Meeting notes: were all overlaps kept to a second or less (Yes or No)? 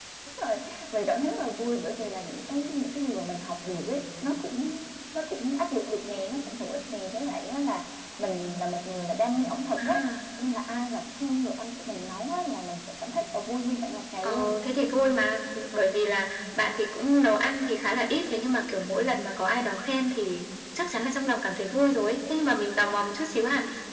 Yes